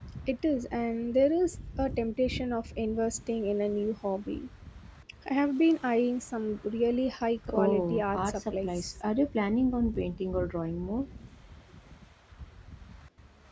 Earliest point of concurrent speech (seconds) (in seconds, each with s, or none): 7.5 s